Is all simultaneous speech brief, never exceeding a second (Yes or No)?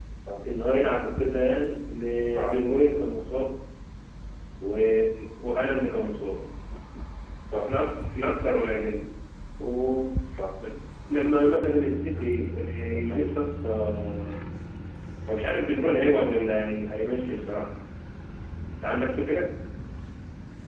Yes